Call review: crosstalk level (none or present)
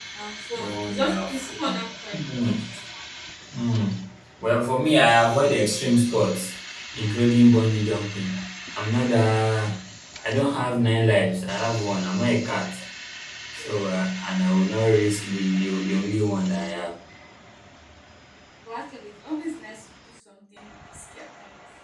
present